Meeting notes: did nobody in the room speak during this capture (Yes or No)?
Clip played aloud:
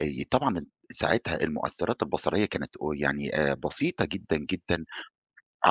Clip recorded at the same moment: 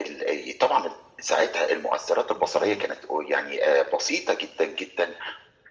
No